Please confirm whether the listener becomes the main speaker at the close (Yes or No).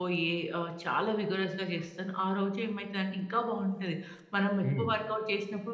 No